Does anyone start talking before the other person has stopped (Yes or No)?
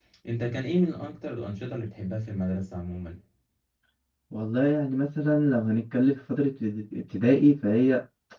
No